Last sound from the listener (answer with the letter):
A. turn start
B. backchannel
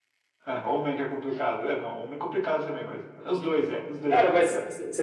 A